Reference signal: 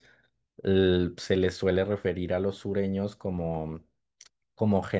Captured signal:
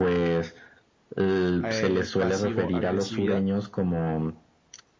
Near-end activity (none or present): present